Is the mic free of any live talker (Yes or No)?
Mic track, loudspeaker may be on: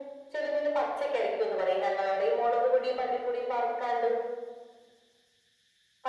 Yes